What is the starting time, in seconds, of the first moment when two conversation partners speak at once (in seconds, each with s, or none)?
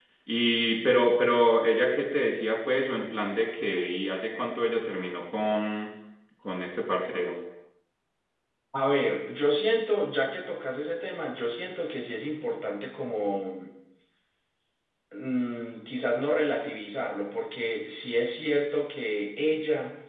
none